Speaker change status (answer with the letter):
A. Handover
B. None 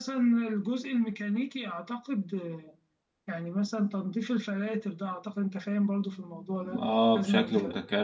A